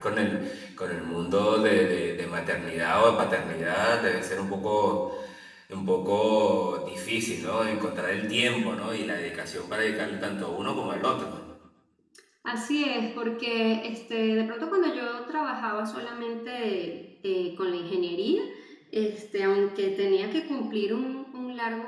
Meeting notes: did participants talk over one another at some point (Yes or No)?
No